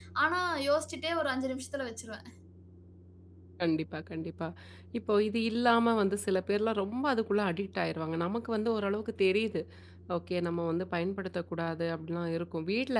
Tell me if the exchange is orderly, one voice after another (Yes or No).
Yes